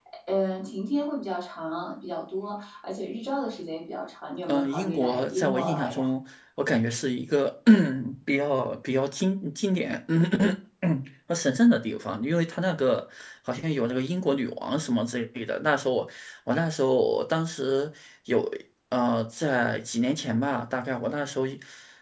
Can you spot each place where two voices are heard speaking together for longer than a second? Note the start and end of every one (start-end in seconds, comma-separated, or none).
4.5-6.1